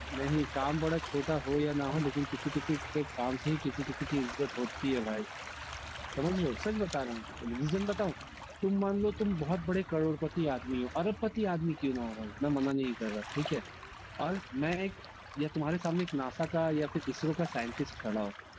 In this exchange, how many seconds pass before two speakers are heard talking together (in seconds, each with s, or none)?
none